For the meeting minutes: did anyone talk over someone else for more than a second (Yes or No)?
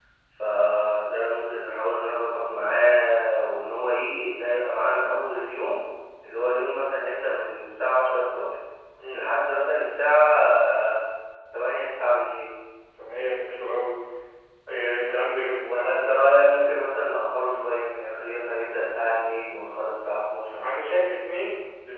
No